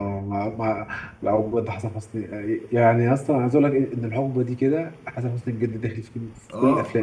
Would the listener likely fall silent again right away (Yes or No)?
No